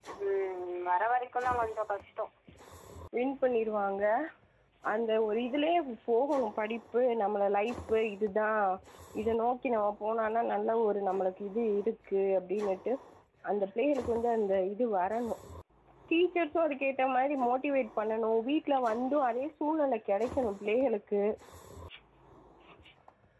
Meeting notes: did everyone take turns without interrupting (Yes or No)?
Yes